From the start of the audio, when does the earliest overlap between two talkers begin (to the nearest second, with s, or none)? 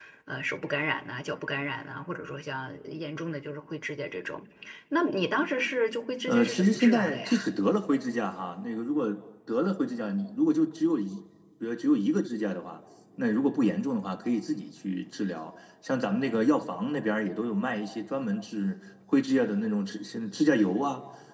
6 s